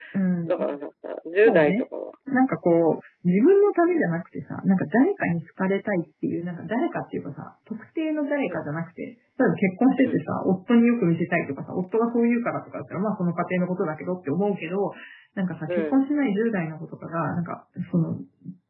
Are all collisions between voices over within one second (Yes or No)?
Yes